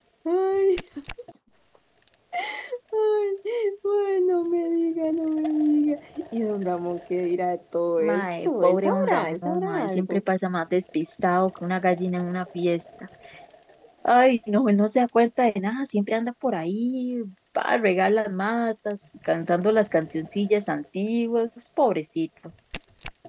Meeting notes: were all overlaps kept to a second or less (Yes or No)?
No